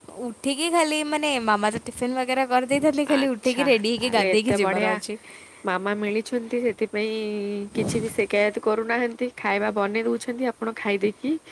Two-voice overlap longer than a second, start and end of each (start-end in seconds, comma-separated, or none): 3.2-4.9